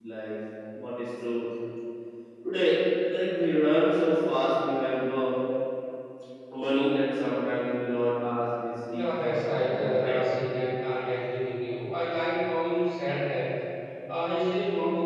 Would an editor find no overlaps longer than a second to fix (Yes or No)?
No